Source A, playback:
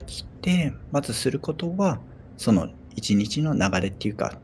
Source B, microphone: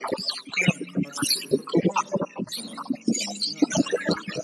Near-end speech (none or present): none